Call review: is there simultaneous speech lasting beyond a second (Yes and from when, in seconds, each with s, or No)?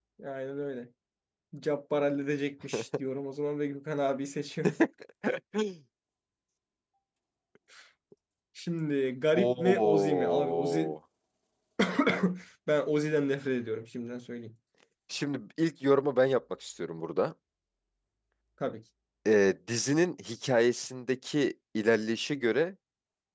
Yes, from 9.3 s